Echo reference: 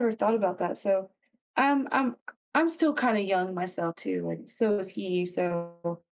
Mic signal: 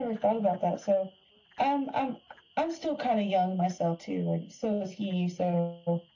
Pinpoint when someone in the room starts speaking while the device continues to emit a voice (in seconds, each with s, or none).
none